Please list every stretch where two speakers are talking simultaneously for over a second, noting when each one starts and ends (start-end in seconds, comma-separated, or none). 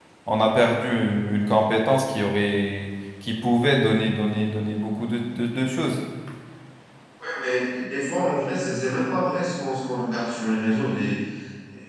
none